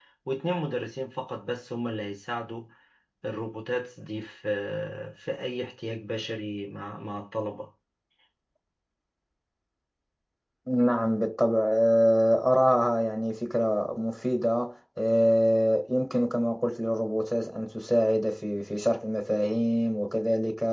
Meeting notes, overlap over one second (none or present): none